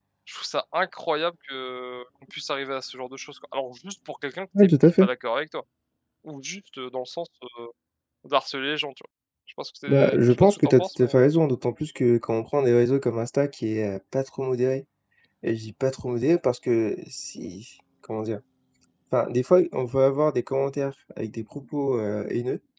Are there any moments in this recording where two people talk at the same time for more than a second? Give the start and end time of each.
9.9-11.1

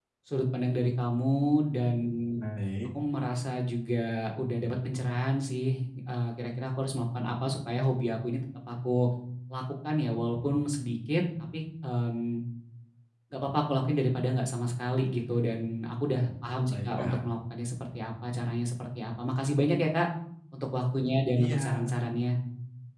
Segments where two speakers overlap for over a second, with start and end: none

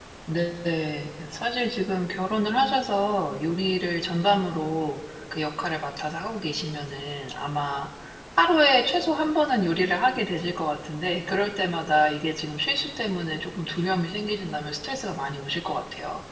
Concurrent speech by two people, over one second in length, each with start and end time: none

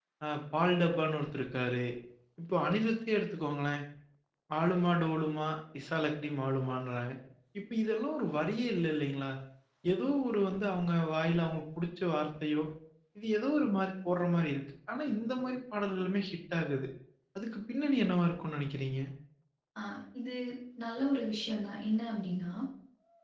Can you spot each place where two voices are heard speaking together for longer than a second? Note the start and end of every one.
none

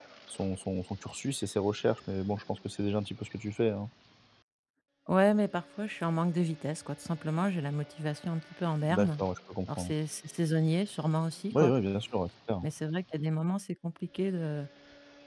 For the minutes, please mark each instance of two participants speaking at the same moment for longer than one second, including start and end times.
none

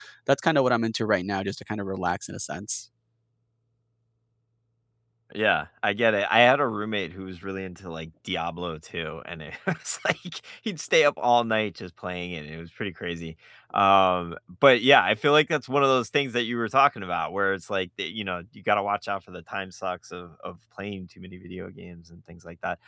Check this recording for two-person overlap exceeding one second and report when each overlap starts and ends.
none

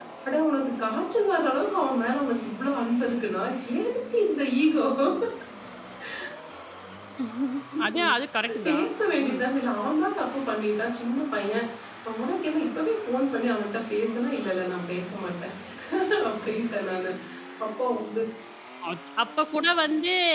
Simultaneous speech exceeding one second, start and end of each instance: none

